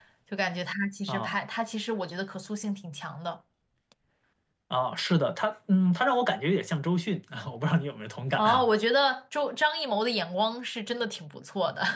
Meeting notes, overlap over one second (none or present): none